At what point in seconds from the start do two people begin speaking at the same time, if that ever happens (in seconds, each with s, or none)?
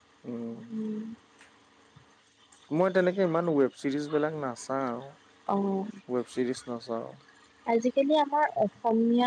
none